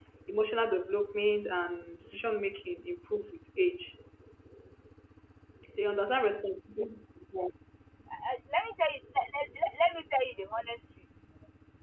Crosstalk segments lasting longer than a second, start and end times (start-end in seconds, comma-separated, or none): none